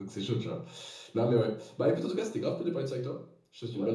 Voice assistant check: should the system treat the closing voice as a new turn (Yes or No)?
Yes